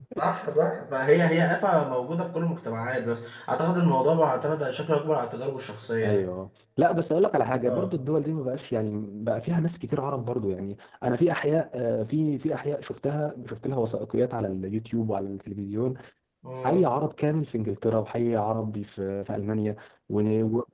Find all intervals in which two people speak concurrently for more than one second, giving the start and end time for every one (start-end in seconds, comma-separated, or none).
none